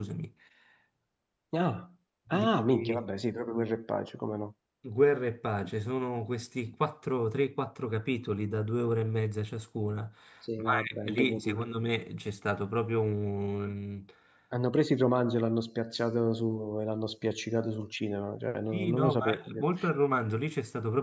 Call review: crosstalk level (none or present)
present